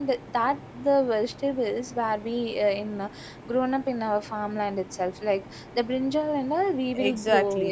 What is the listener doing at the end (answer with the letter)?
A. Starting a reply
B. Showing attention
A